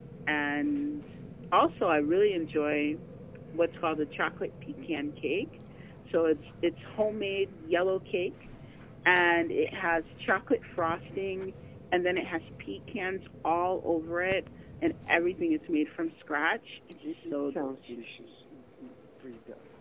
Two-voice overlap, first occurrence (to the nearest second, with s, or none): 17 s